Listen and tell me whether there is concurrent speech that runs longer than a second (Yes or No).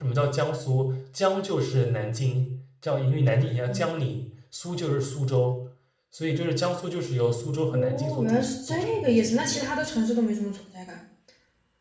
Yes